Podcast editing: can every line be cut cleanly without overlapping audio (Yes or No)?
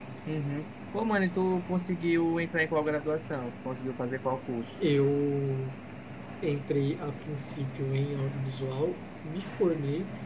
Yes